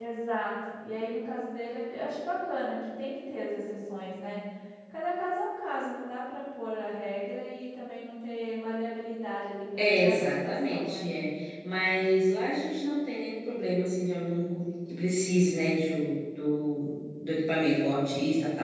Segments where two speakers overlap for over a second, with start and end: 9.8-11.1

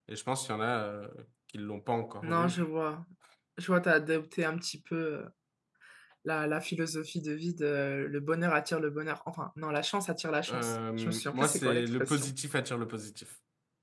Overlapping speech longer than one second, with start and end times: 10.5-12.3

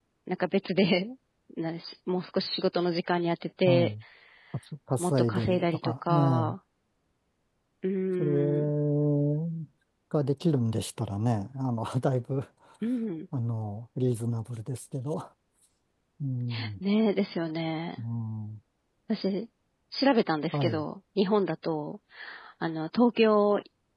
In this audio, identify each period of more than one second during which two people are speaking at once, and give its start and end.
5.0-6.5

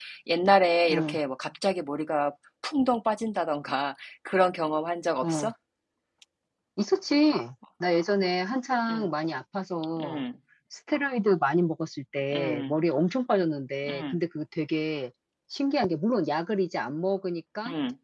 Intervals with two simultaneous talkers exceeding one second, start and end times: none

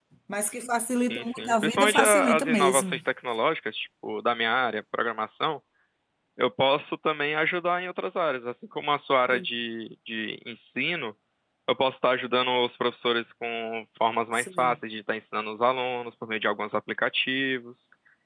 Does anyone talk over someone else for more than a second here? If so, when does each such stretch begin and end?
1.1-3.0

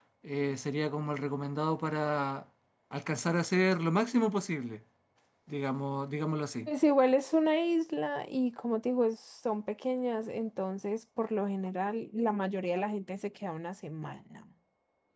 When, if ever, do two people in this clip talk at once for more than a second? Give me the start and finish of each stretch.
none

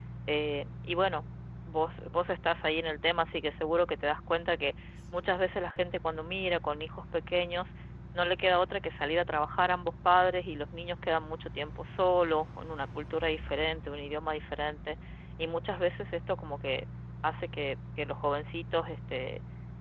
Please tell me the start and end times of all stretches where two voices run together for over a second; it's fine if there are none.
none

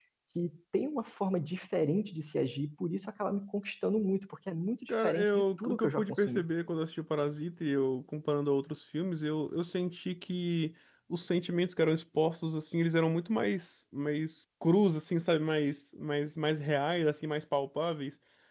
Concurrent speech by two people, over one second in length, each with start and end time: 4.9-6.4

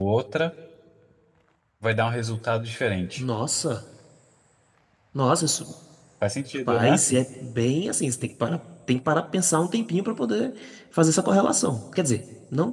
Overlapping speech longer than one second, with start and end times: none

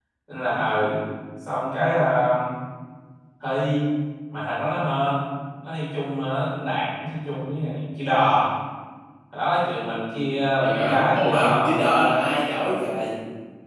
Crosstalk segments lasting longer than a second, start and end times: 10.6-11.8

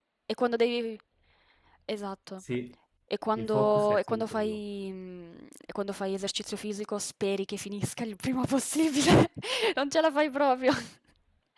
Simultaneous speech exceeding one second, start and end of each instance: 3.3-4.7

